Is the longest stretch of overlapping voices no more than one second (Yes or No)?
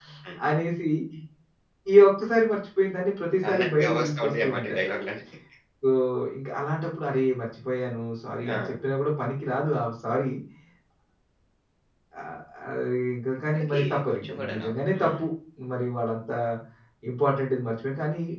No